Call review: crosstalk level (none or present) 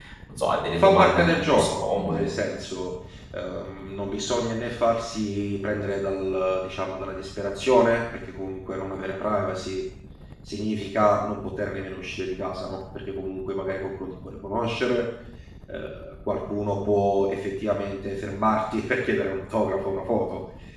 present